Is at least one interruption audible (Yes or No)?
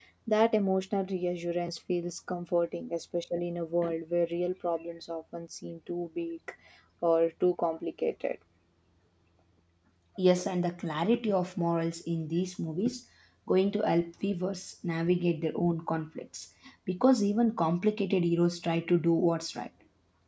No